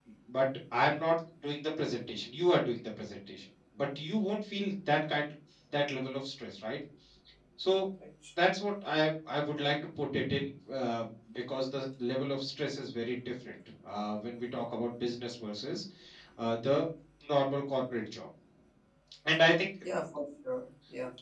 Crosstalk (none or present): none